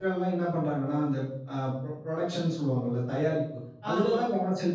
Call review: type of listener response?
listening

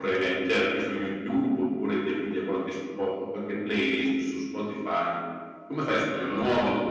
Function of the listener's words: listening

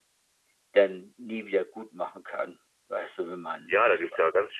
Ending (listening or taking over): taking over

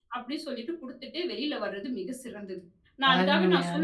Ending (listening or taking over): listening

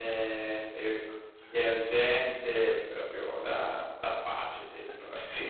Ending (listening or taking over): taking over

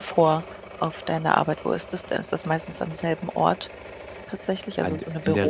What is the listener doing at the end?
taking over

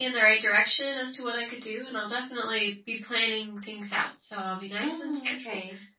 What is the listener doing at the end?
taking over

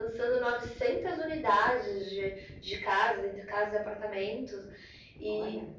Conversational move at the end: listening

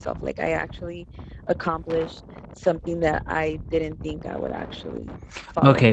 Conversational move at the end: taking over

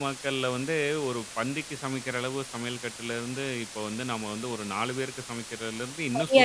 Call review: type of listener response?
taking over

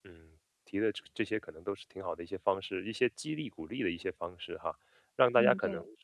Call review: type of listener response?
listening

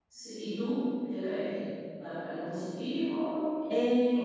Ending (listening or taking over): taking over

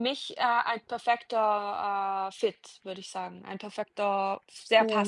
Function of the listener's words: taking over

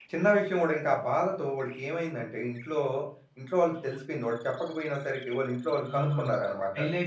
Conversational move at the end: taking over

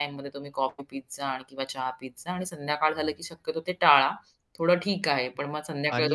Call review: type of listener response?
taking over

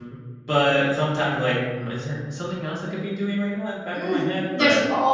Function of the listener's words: taking over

